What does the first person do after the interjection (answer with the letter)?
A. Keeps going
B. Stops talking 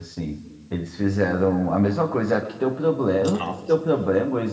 A